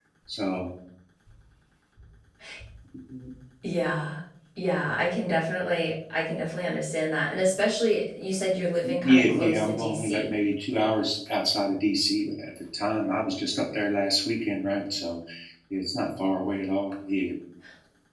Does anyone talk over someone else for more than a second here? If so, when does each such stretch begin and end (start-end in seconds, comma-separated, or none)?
9.0-10.3